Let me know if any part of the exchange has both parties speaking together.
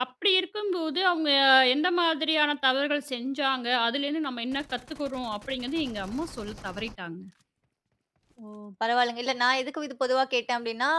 No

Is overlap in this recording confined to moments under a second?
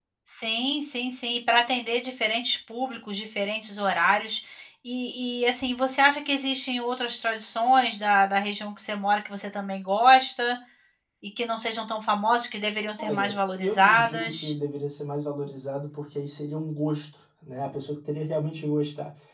No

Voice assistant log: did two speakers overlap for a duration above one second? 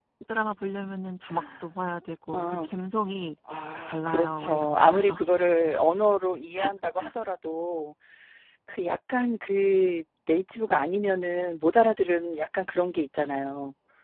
Yes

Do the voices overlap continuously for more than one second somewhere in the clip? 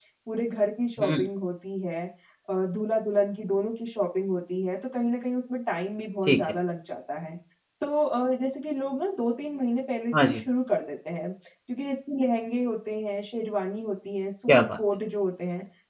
No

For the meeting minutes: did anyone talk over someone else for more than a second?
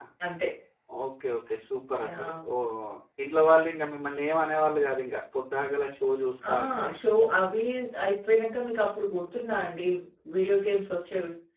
No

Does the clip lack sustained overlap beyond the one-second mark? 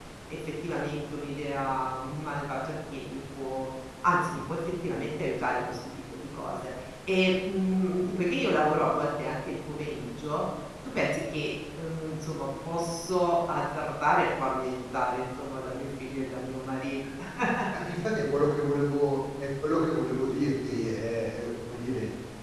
Yes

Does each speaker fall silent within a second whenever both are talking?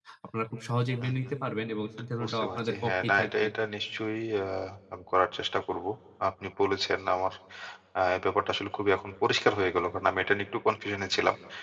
No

